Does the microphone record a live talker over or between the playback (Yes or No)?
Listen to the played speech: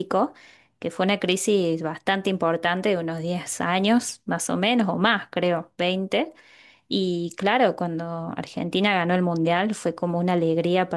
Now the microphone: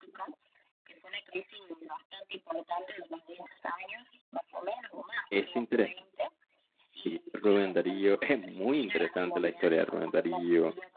Yes